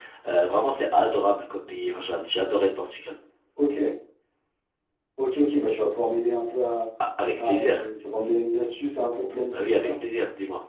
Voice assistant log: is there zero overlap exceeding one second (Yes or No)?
Yes